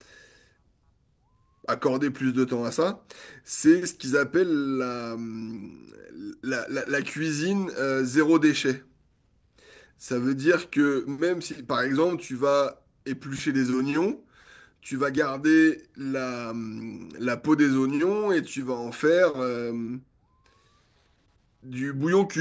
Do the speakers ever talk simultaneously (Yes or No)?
No